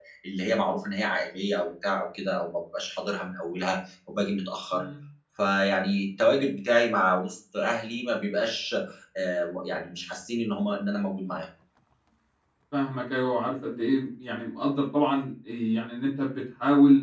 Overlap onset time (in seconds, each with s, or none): none